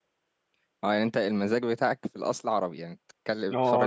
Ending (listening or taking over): taking over